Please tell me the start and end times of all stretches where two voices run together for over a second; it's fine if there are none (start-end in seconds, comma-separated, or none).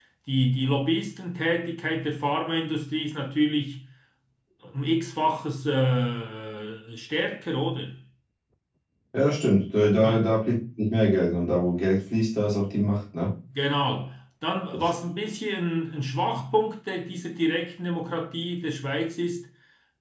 none